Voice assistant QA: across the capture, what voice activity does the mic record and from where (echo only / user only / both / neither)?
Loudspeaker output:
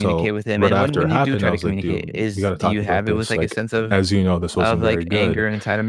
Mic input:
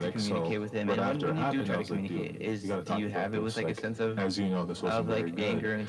echo only